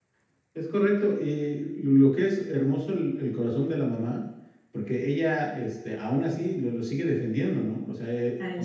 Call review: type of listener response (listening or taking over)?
listening